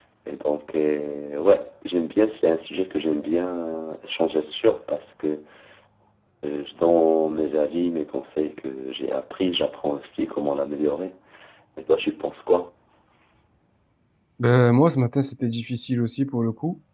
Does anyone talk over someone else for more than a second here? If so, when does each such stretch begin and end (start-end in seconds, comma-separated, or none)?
none